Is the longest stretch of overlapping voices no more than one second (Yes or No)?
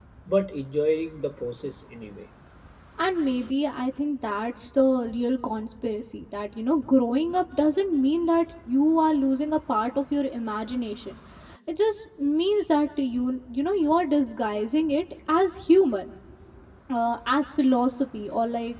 Yes